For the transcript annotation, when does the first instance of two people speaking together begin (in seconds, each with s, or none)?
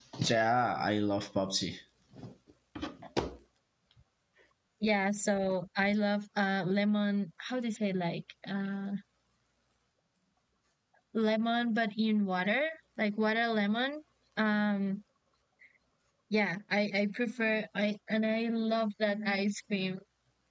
none